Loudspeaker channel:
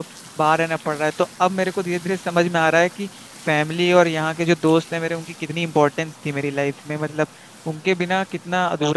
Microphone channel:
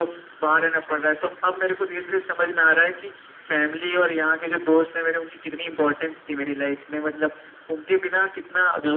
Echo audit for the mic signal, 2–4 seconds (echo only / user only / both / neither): echo only